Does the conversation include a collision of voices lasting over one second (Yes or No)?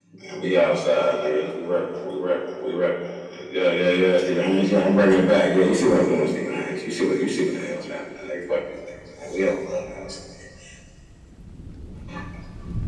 No